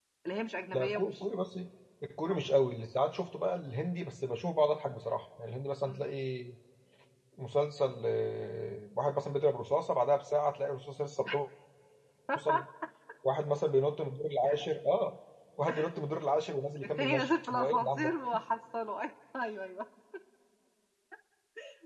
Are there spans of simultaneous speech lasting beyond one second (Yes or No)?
Yes